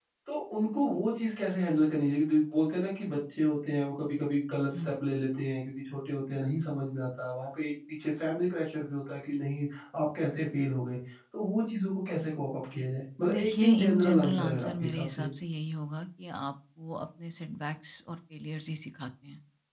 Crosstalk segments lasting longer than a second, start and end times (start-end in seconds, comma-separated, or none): 13.3-15.3